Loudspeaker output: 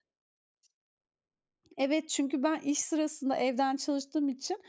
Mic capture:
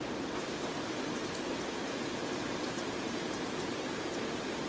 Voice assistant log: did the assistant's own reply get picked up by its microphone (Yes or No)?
No